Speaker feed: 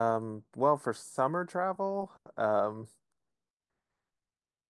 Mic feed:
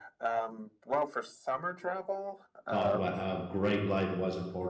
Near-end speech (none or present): present